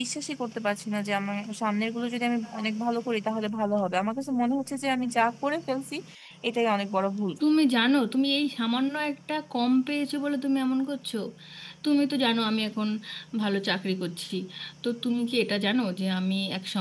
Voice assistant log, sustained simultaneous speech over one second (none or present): none